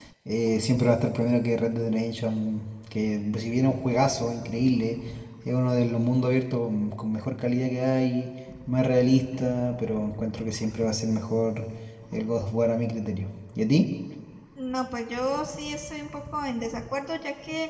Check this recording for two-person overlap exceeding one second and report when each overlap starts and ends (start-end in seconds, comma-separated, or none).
none